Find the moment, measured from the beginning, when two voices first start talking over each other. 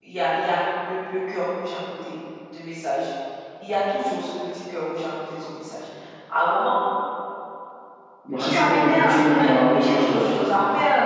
8.4 s

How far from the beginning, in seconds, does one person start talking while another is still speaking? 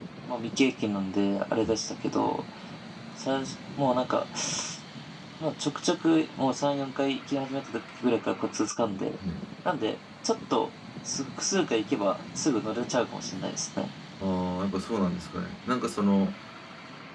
none

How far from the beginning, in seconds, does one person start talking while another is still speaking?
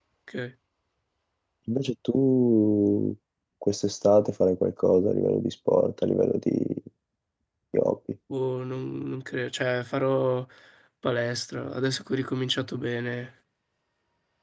none

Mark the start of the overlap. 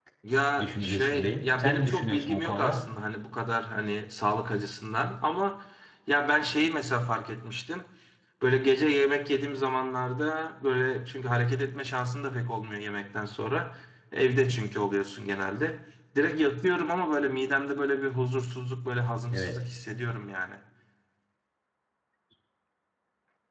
0.6 s

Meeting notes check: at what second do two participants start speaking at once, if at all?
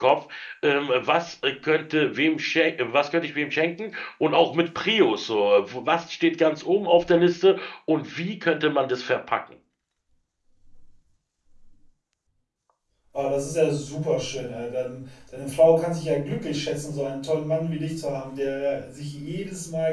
none

